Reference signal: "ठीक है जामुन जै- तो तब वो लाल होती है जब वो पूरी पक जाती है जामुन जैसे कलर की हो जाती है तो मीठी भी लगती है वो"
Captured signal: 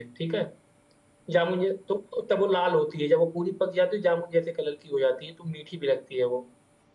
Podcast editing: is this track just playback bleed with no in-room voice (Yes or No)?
Yes